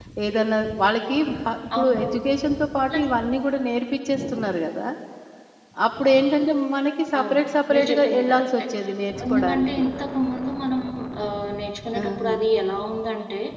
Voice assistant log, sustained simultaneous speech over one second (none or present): present